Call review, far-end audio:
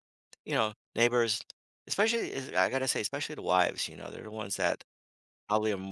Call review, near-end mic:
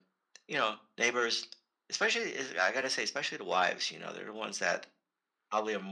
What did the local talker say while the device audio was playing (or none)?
none